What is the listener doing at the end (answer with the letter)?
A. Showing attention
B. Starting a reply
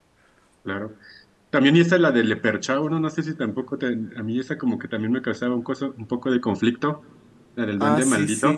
B